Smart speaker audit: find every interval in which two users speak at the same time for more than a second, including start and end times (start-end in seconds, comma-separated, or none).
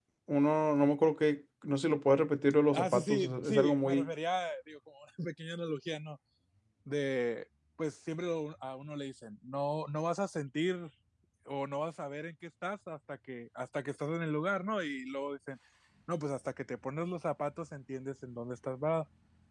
2.7-4.1